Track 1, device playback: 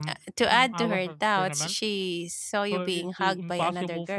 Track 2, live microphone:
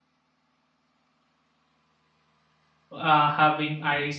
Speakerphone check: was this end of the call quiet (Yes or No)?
No